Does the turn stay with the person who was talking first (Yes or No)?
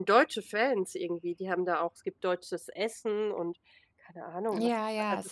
No